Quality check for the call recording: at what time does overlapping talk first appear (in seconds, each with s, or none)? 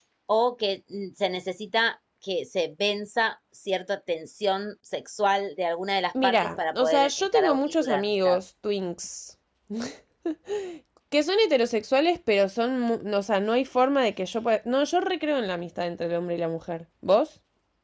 6.2 s